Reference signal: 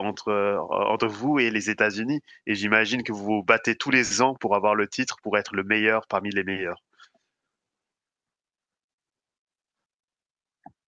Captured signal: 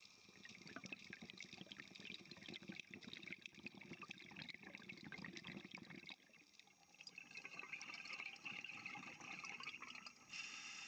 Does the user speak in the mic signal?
No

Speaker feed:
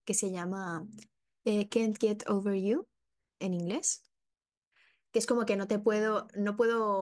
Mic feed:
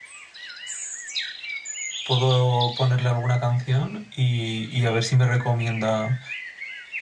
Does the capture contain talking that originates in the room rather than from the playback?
Yes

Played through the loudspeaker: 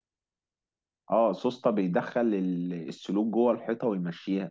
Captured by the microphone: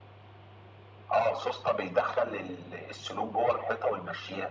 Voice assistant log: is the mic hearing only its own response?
Yes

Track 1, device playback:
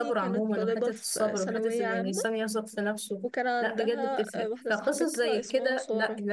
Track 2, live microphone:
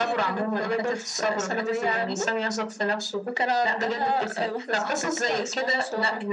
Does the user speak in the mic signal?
No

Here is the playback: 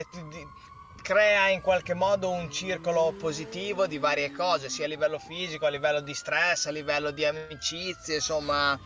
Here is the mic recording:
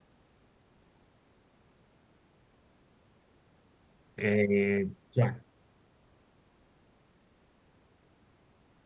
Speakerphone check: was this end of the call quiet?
No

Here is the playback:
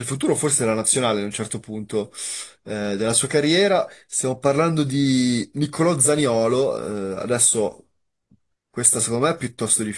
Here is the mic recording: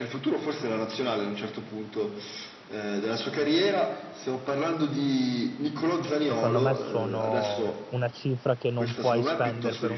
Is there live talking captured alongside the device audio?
Yes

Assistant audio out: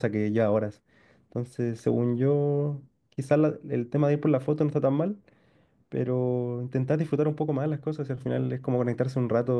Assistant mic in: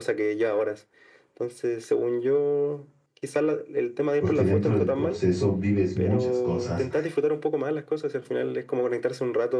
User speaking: Yes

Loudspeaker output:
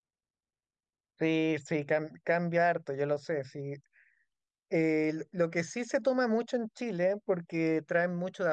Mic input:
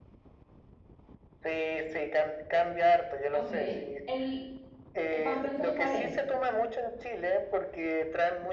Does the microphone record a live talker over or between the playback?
Yes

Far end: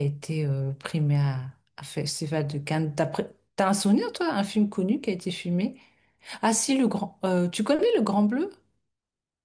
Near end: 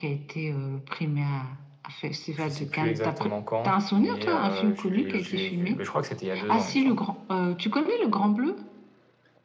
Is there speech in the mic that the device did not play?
Yes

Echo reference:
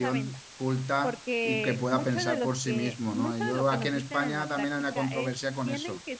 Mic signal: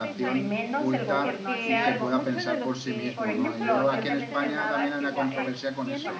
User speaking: Yes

